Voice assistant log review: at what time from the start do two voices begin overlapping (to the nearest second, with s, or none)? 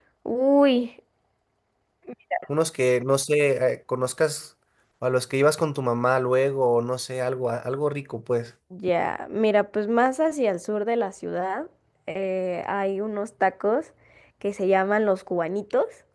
none